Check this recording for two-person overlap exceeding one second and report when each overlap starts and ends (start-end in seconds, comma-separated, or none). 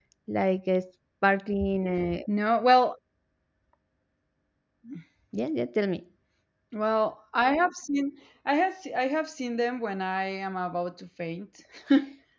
none